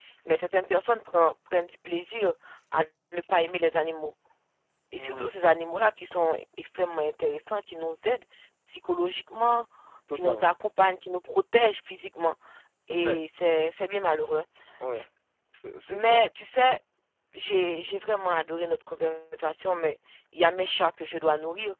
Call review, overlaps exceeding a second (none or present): none